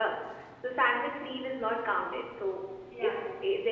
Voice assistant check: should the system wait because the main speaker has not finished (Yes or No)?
Yes